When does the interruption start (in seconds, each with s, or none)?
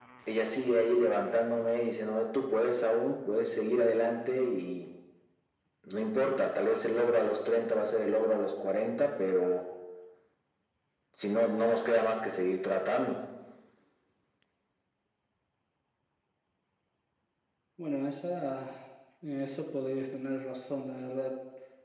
none